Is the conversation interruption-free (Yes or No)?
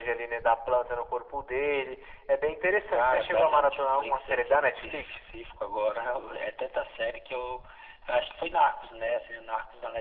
No